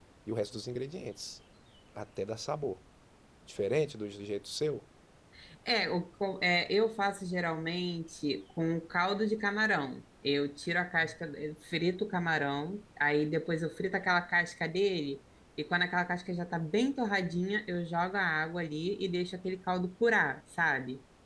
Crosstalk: none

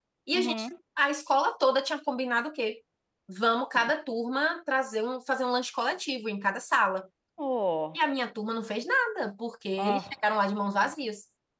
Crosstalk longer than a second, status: none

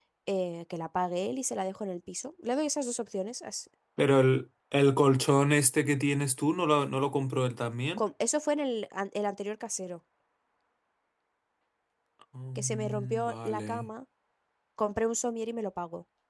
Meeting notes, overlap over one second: present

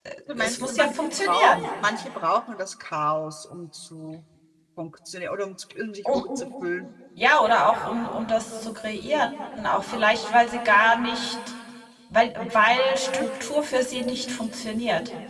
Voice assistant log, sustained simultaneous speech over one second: present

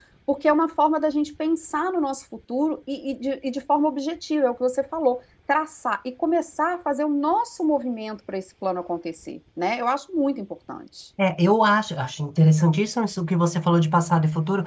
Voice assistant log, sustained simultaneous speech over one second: none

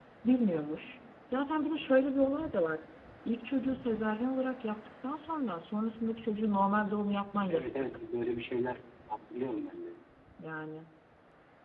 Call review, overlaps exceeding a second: none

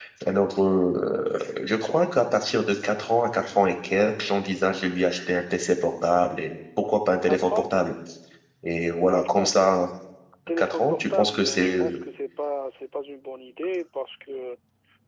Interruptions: present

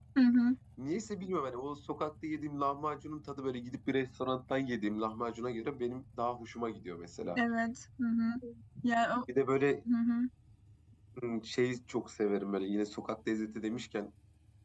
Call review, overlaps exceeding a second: none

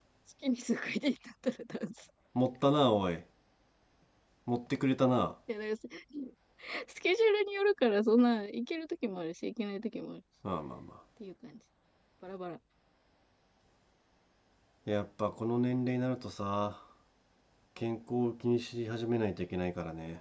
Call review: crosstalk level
none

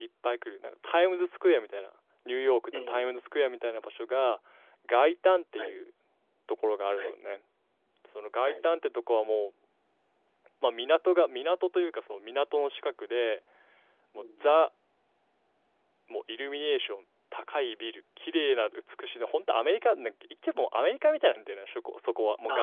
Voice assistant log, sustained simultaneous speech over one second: none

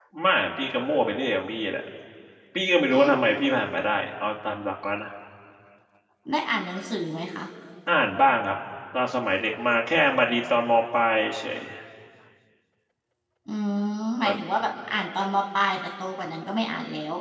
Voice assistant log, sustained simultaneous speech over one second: none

